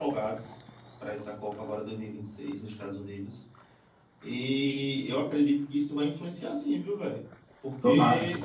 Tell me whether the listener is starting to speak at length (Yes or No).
No